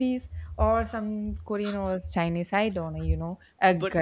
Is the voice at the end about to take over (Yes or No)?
No